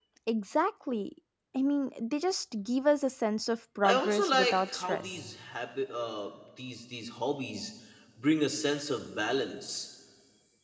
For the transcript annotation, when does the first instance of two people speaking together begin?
4 s

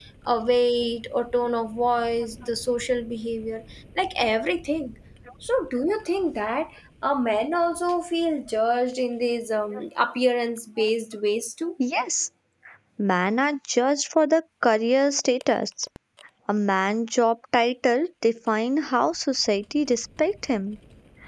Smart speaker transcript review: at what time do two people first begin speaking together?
none

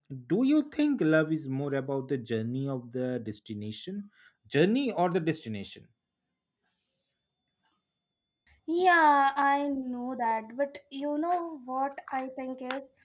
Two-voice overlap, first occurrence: none

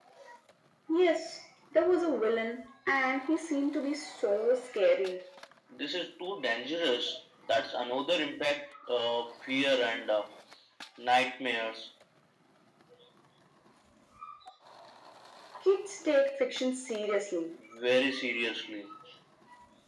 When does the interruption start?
none

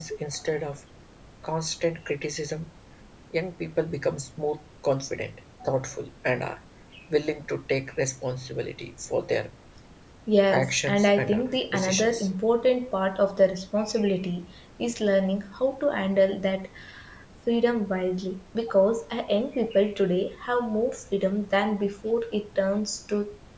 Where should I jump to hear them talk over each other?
11 s

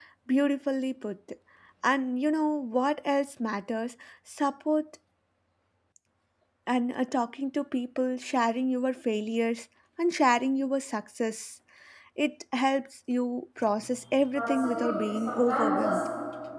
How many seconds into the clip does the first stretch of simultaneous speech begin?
14 s

